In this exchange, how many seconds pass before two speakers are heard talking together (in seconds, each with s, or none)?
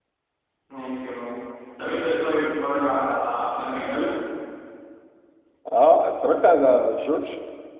none